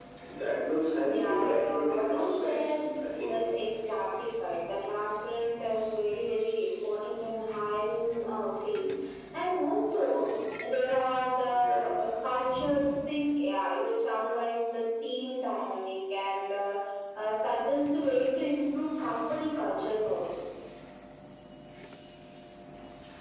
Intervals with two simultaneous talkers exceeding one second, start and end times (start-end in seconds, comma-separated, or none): 1.0-2.6